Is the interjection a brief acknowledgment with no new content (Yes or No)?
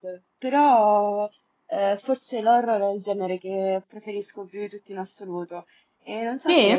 Yes